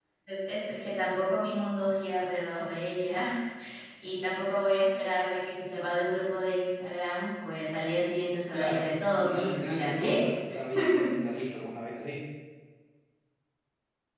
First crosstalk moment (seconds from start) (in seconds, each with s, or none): 8.5 s